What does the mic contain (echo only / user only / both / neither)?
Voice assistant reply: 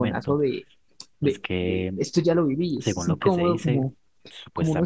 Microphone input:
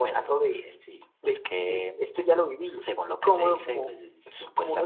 both